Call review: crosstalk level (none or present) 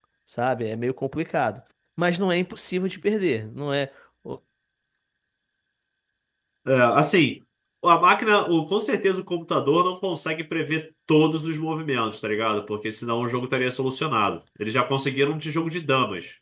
none